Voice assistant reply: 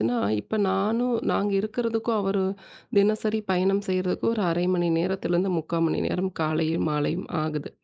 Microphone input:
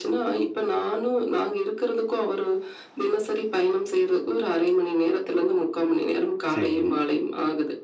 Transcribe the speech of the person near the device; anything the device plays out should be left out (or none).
சரிங்க.